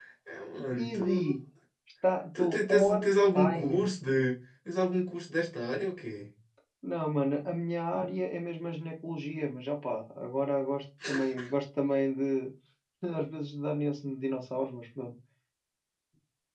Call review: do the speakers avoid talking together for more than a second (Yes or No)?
No